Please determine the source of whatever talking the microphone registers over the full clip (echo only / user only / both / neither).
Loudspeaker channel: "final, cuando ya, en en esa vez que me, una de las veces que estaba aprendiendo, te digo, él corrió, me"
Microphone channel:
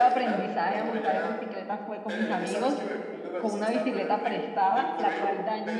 both